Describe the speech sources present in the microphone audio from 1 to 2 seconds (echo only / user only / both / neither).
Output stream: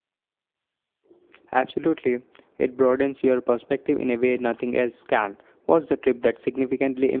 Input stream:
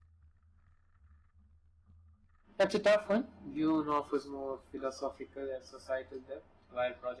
neither